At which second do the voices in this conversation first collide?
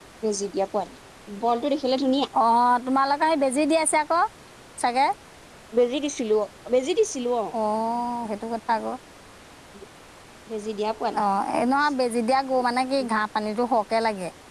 none

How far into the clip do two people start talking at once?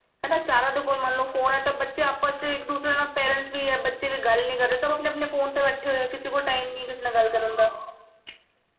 none

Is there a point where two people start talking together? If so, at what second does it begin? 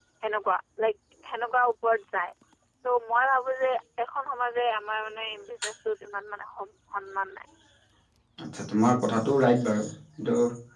none

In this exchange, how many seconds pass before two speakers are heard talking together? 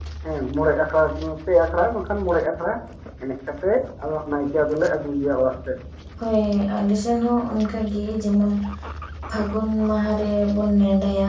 none

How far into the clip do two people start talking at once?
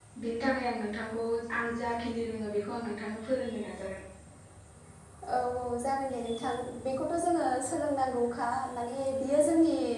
none

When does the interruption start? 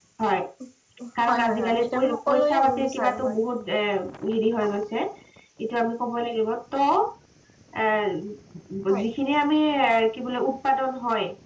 1 s

